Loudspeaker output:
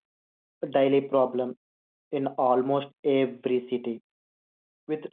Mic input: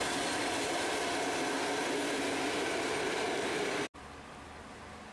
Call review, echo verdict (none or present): none